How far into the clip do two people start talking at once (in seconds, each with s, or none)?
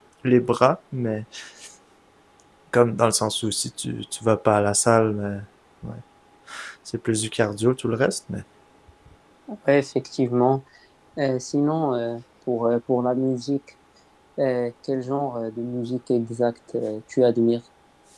none